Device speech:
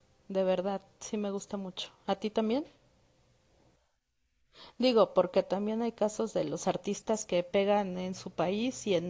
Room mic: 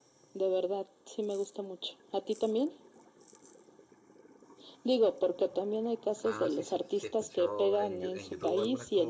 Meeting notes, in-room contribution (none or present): present